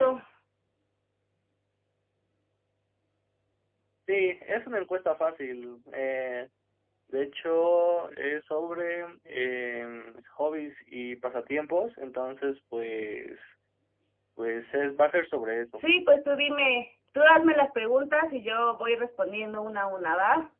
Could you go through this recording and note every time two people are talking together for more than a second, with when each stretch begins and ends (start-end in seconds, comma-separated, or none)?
none